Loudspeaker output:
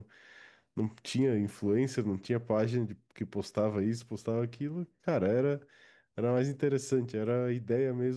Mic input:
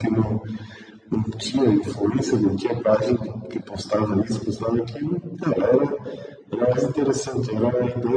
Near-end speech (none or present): none